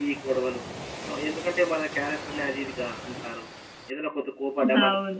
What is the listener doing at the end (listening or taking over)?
listening